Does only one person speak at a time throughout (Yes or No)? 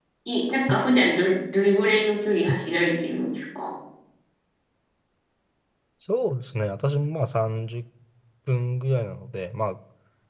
Yes